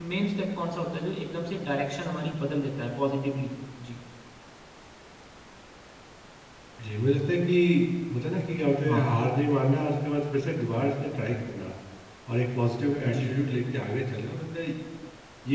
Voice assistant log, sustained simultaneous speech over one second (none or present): none